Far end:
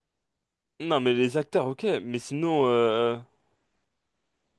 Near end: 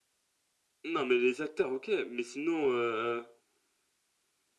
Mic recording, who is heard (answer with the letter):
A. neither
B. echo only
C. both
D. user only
B